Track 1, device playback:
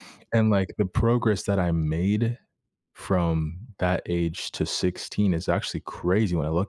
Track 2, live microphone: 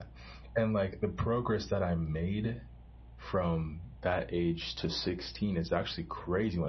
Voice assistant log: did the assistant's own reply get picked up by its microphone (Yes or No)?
Yes